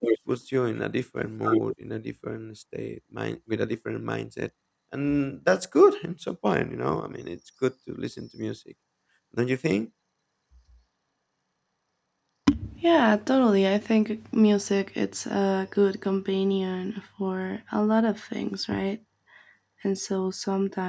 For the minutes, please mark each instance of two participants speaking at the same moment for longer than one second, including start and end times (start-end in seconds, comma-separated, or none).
none